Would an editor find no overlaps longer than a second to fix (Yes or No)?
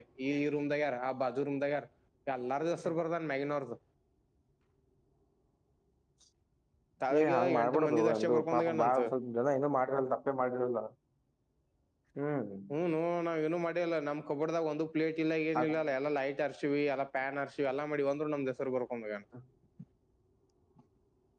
No